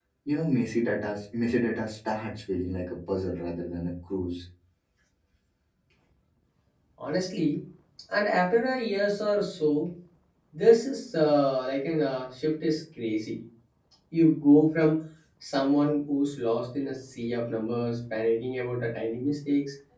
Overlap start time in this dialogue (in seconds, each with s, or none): none